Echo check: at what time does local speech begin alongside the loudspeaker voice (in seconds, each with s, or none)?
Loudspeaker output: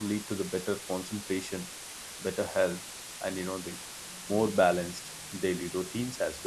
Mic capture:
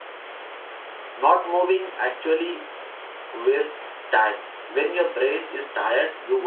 1.2 s